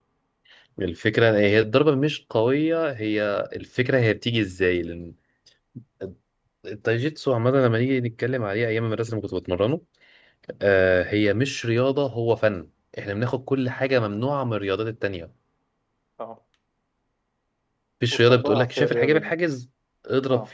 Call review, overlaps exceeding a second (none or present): present